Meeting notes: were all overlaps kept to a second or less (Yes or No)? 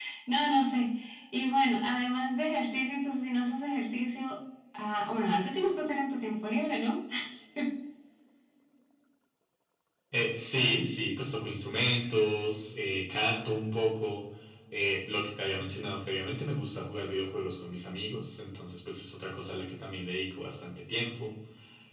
Yes